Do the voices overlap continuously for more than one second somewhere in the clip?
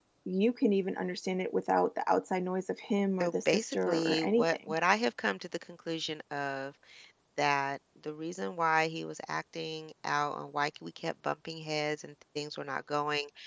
Yes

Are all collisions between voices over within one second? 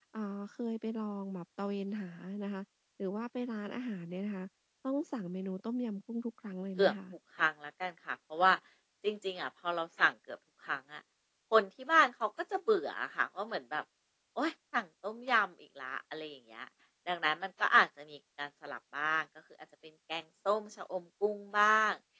Yes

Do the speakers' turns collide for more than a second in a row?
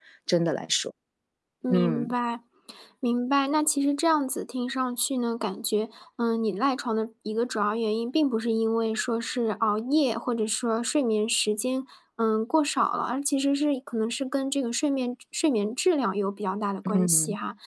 No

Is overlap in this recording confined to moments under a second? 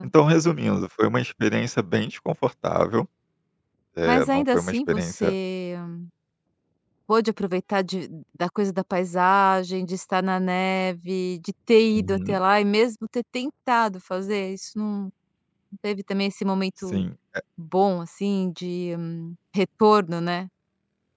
No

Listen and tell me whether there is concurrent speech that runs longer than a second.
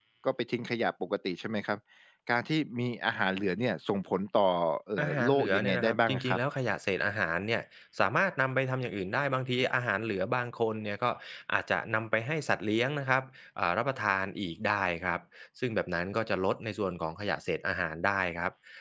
Yes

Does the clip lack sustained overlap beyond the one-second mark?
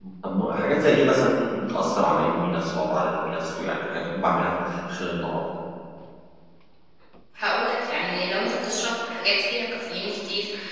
Yes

